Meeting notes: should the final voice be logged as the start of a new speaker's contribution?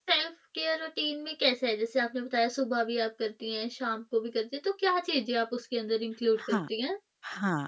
Yes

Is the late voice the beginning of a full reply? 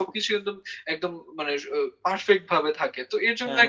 No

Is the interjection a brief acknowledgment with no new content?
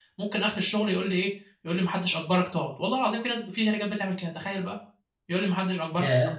No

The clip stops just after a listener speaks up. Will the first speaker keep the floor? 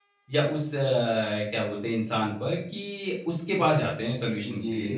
No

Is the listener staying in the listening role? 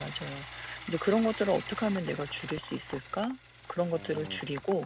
Yes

